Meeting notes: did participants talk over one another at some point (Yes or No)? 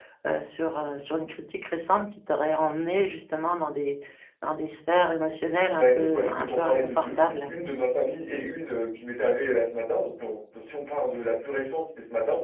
Yes